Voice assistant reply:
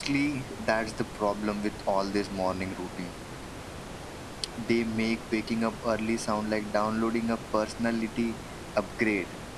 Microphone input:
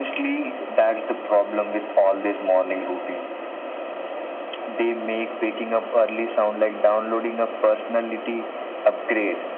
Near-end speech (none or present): none